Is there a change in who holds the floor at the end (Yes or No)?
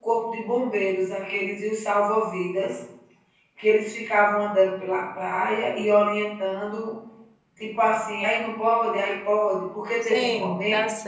Yes